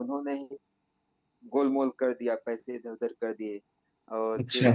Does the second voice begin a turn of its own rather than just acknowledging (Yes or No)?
No